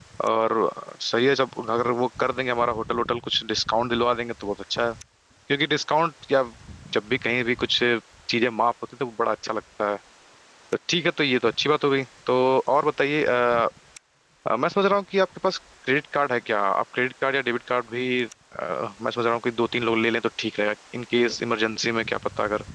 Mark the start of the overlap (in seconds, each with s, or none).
none